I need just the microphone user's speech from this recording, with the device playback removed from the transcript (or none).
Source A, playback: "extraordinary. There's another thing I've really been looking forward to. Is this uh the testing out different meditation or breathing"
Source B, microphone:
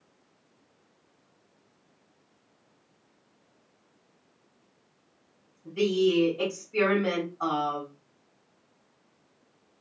the experiment of